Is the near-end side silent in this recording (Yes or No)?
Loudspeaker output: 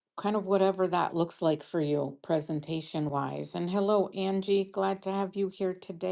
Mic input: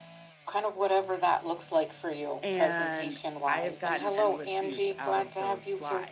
No